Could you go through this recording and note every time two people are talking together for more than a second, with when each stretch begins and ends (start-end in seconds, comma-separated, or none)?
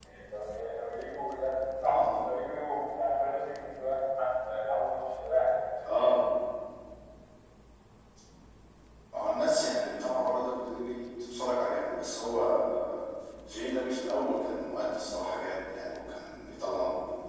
none